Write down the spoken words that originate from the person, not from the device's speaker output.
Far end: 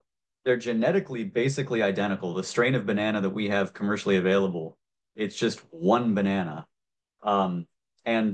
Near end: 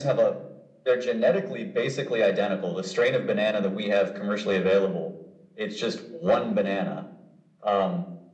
none

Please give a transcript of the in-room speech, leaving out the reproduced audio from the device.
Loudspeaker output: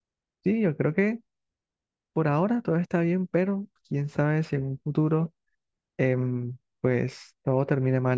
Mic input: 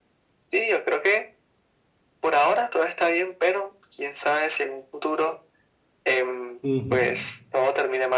Ujú.

